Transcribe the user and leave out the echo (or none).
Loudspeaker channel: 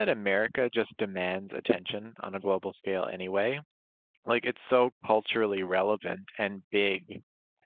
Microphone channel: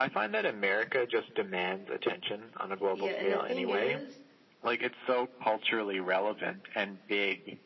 yeah, and the thing is,